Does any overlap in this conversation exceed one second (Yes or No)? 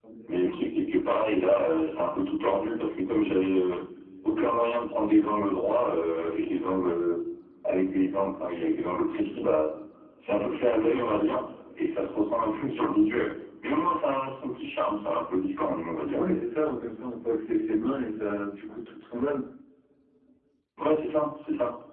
No